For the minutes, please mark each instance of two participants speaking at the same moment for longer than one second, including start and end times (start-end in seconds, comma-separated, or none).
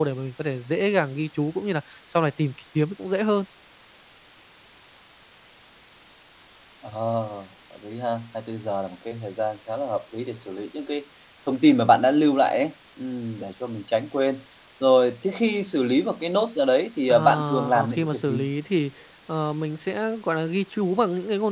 17.1-18.4